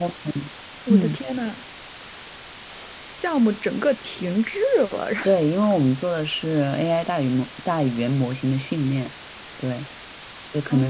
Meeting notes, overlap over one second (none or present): none